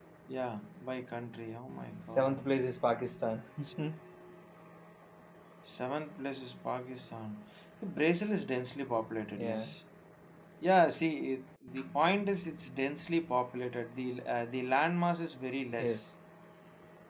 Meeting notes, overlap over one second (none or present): none